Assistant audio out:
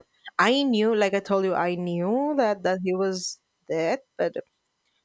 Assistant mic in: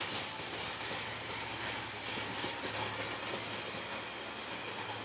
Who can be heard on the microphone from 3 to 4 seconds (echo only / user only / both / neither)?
neither